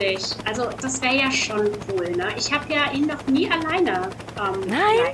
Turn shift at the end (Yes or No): No